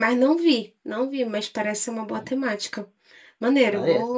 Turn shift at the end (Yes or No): No